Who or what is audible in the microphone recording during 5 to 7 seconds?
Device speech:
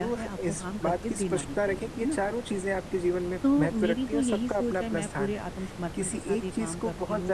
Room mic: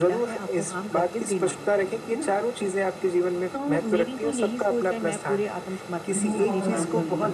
both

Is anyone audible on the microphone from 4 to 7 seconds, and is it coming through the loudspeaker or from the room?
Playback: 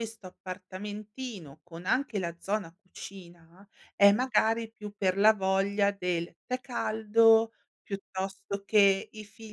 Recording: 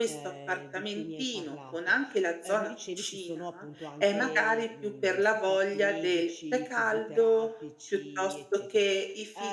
both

